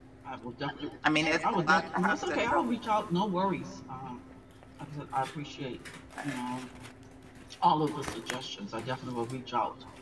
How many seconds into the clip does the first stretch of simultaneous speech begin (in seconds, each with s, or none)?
1.1 s